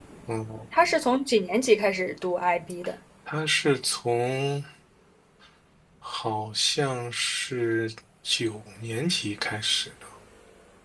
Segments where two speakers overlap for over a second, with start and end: none

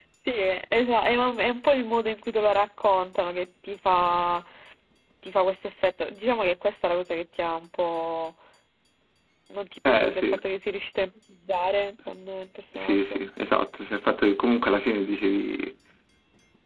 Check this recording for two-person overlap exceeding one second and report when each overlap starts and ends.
none

